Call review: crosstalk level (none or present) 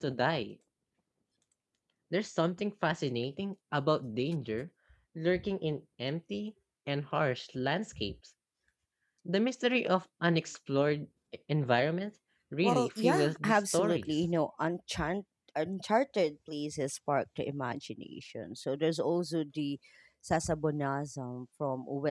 present